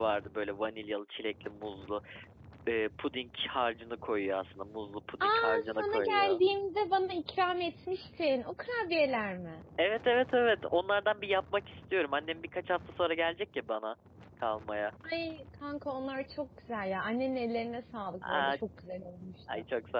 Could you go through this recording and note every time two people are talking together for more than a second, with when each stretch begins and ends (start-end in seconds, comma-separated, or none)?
5.2-6.4